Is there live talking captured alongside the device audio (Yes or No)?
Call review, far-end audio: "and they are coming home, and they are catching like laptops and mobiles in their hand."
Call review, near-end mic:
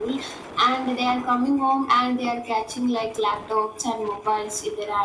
No